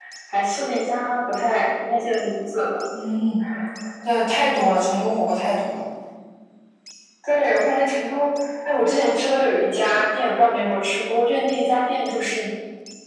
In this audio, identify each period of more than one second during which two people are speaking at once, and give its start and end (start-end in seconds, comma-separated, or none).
none